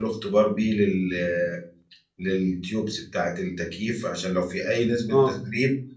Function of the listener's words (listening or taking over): listening